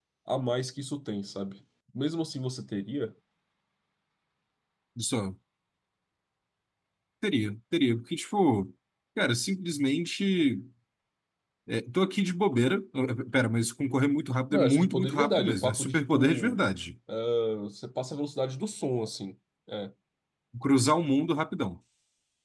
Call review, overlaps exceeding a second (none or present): present